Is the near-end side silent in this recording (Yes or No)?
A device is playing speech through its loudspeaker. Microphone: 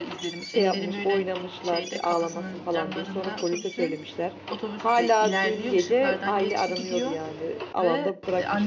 Yes